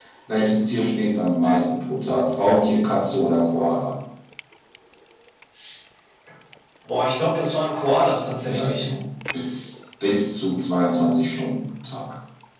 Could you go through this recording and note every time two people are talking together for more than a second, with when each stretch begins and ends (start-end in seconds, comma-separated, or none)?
none